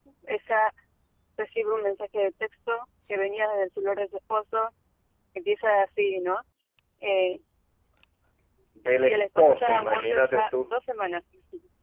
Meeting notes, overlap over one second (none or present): present